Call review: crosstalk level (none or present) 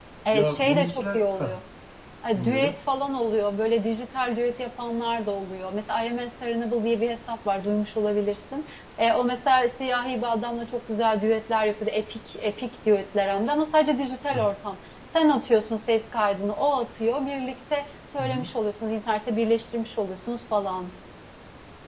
present